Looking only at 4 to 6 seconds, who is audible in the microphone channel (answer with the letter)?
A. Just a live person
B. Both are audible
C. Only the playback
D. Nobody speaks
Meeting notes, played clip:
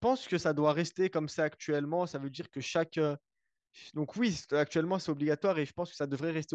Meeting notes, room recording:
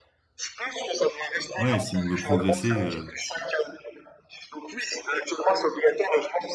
C